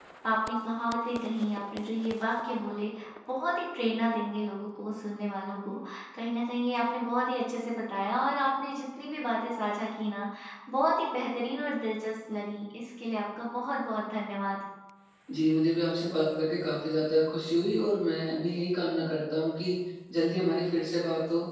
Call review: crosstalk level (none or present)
none